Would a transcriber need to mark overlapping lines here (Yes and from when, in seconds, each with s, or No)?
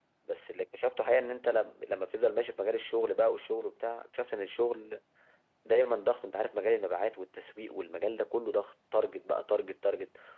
No